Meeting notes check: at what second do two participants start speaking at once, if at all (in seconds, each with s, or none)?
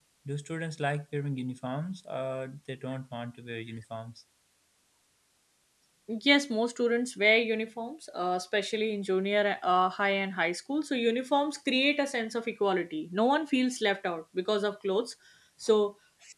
none